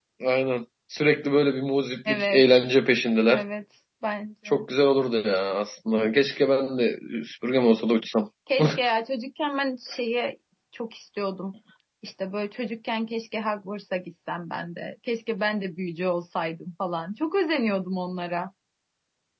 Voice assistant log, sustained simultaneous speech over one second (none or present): none